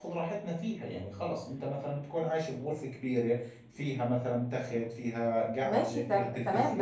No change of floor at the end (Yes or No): No